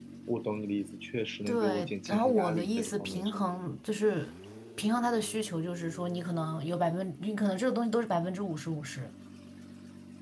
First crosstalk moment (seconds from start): 1.4 s

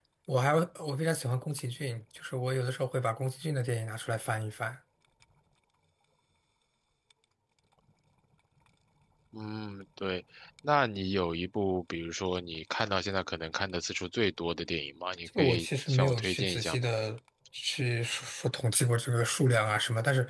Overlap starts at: 15.3 s

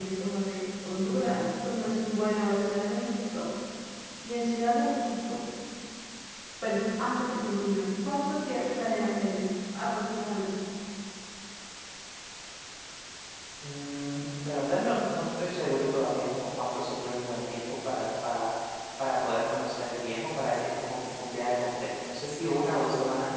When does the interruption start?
none

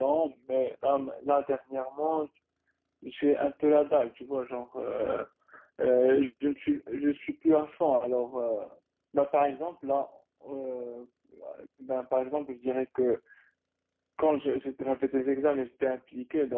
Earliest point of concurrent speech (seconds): none

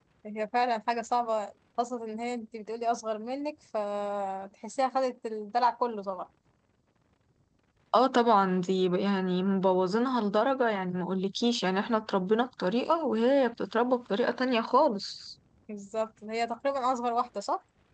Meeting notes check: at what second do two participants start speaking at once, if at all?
none

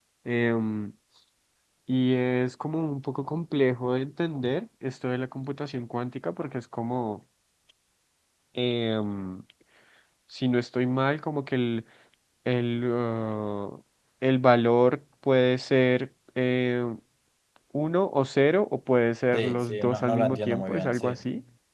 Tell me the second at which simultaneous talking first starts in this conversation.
19.3 s

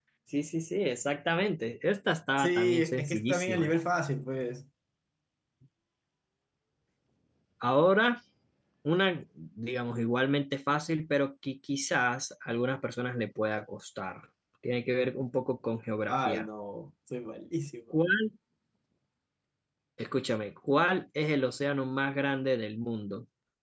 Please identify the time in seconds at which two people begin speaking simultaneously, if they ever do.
2.4 s

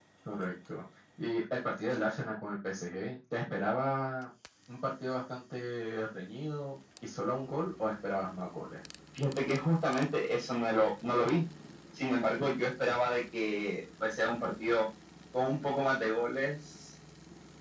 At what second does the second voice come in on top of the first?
none

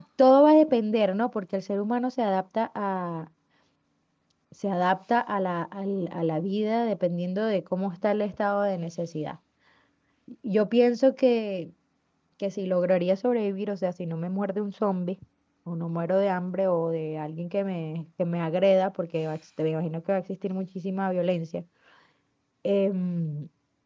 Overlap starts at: none

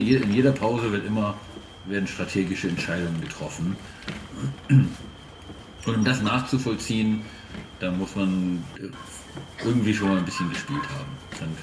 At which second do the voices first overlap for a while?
none

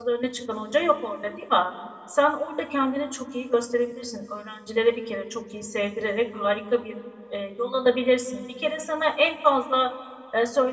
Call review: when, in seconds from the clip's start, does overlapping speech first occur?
none

